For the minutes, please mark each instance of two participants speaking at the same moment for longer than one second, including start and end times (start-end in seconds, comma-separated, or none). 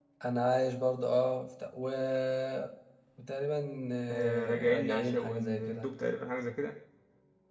4.1-5.9